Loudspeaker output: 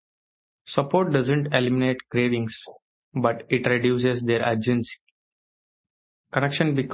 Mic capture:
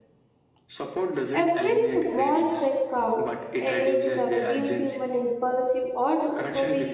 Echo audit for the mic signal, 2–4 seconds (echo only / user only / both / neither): both